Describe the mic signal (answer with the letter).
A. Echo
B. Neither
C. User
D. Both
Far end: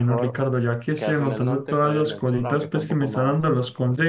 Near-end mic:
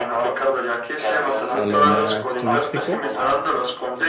D